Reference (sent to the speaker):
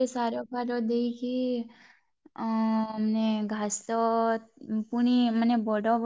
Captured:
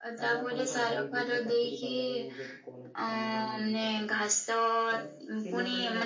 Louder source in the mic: echo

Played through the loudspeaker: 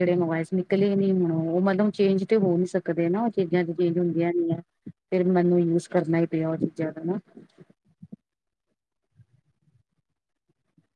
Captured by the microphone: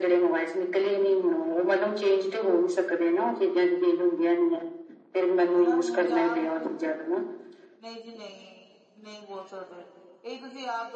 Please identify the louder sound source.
echo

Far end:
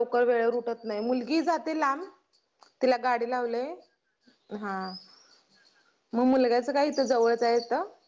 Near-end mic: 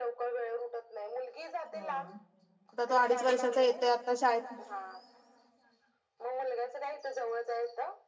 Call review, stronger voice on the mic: user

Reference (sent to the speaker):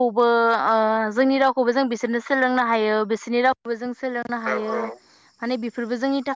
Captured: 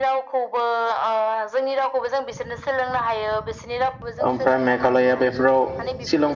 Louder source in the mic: user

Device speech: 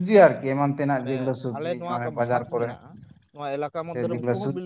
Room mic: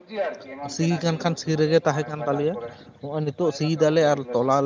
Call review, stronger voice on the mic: user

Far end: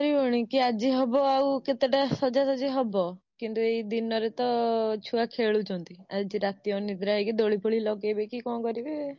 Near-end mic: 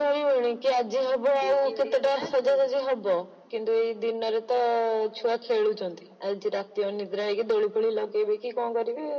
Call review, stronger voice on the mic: echo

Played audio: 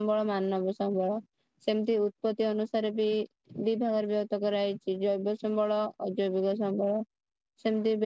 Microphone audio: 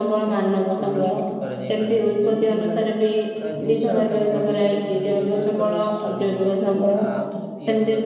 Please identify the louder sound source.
echo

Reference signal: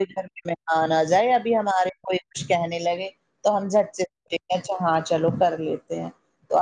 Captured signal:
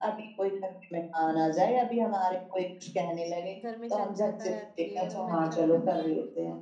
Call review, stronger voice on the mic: echo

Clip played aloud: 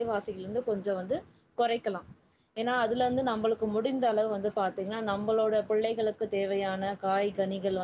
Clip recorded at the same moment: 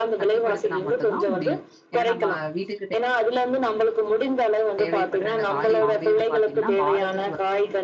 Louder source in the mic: echo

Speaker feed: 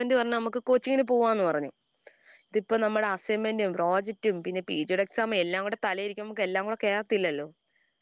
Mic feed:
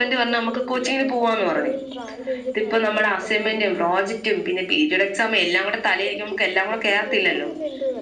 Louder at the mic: echo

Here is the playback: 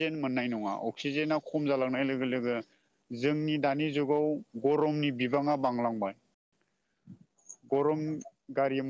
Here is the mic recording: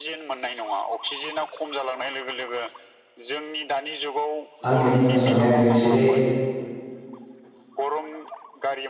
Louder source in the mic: user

